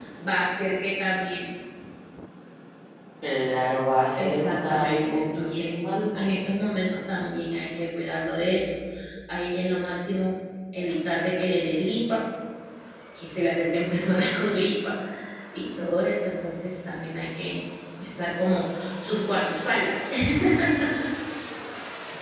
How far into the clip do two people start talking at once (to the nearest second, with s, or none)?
4 s